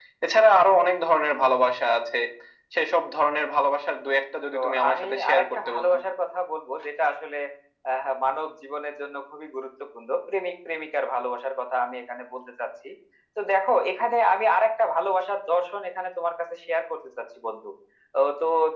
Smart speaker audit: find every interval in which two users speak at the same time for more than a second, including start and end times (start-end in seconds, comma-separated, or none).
4.5-5.9